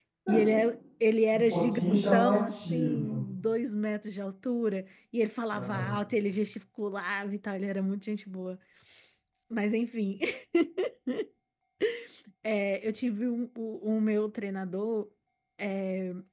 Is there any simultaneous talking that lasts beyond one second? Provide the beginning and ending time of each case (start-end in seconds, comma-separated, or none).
1.3-3.2